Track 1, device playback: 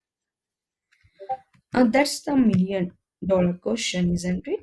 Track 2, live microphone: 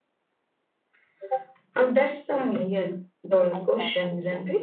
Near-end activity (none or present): present